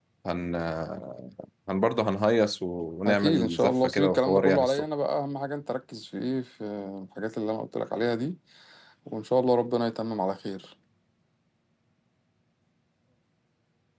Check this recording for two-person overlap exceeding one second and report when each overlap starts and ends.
3.1-4.8

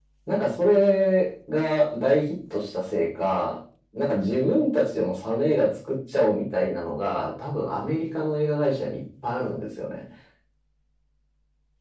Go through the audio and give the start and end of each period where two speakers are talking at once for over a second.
none

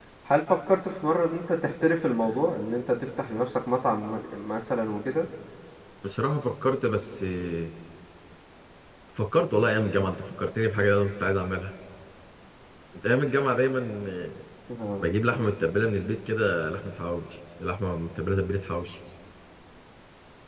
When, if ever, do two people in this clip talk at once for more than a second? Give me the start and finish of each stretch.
none

